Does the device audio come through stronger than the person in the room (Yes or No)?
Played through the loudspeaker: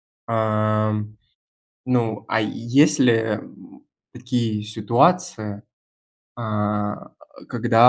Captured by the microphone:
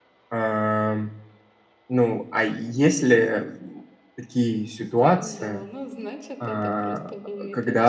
Yes